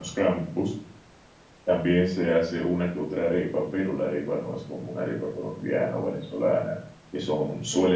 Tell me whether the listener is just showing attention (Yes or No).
Yes